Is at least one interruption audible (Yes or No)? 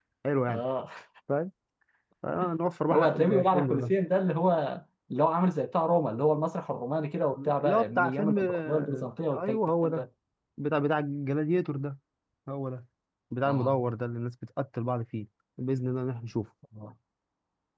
Yes